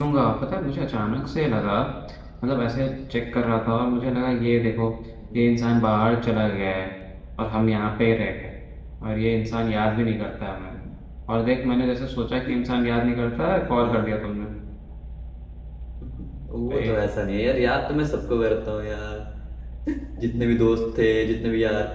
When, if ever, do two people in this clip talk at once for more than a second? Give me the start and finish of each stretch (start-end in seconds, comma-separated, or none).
none